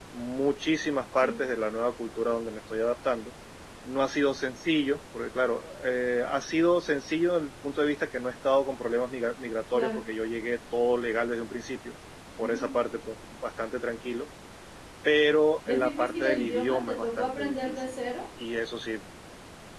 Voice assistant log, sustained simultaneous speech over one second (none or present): present